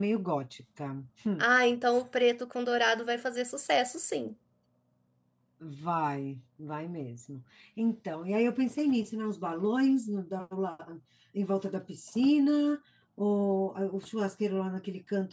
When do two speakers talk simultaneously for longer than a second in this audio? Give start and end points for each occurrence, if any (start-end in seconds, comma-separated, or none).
none